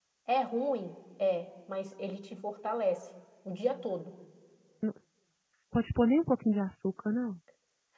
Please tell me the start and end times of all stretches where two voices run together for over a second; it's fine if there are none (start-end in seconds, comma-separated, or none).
none